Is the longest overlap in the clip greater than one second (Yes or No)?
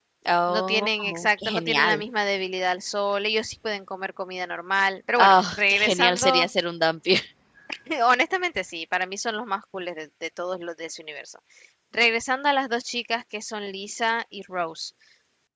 Yes